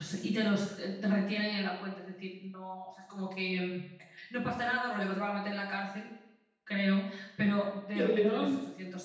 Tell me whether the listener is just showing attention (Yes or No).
Yes